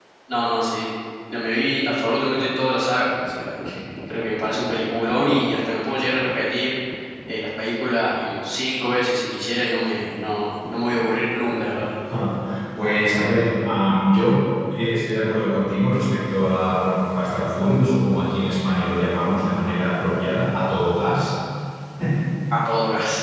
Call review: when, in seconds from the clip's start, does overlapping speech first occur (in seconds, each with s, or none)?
none